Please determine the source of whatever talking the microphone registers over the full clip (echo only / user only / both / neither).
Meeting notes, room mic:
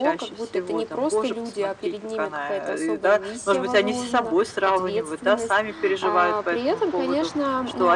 echo only